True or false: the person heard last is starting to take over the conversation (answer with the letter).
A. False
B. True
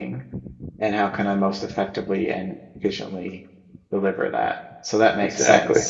A